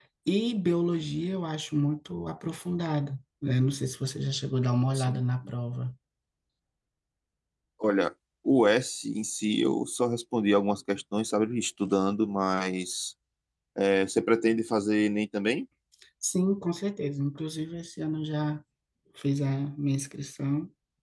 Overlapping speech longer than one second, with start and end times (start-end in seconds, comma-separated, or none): none